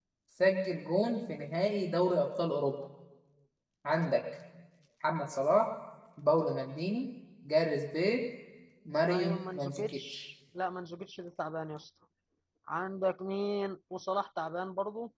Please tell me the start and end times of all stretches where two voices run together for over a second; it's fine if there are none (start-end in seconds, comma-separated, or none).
9.0-10.2